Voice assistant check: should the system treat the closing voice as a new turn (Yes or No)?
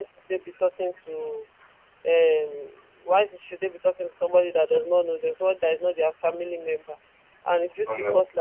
No